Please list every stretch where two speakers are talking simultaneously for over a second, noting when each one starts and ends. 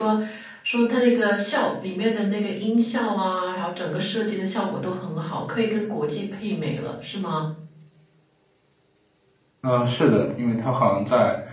none

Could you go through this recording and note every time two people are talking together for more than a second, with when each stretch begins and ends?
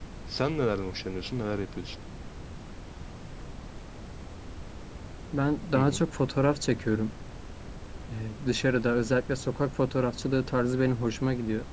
none

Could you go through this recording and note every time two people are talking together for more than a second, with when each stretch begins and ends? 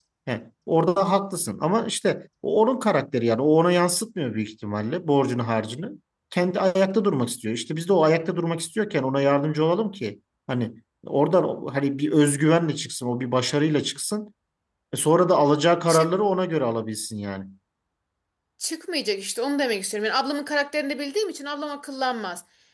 none

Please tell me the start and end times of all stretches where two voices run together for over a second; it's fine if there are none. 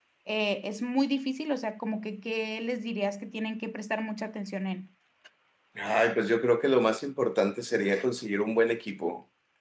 none

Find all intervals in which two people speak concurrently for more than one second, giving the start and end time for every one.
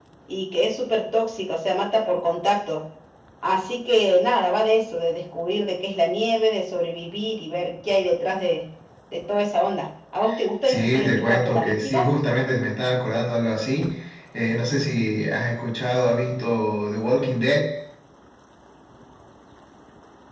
10.6-12.1

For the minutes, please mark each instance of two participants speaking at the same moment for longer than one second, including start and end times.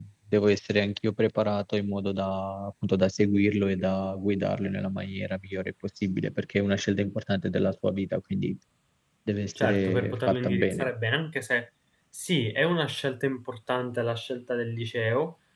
9.6-10.9

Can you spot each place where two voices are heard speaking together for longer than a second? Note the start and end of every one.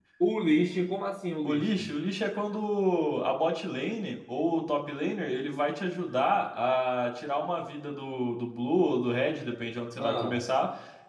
none

